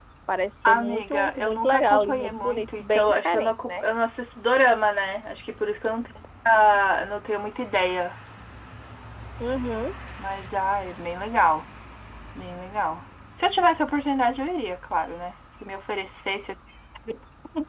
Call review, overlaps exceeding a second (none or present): present